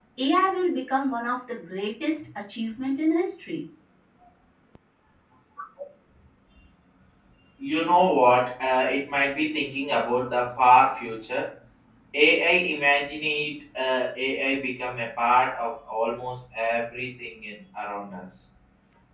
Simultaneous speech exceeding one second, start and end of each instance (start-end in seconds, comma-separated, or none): none